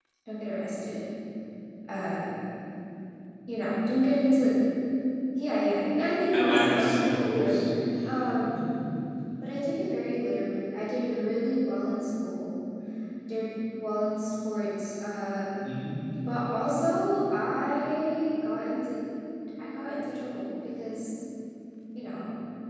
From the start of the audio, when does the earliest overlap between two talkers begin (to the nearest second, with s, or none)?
6 s